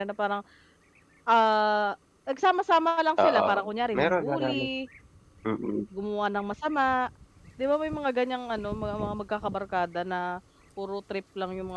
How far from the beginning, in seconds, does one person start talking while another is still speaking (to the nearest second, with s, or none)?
3 s